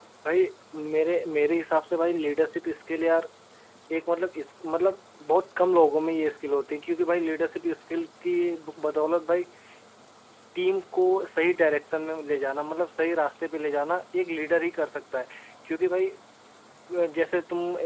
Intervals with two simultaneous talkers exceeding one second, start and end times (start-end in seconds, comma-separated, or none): none